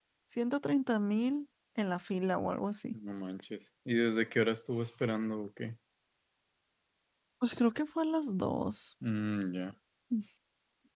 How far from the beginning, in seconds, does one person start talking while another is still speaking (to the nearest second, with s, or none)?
none